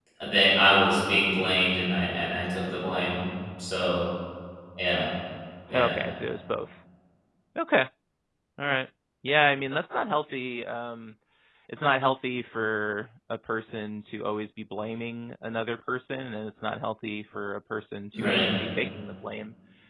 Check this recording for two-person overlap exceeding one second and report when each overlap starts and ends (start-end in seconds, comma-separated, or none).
none